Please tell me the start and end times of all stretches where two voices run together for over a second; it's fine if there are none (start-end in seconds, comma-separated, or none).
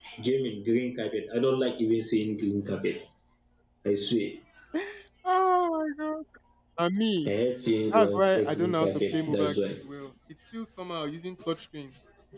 7.9-9.8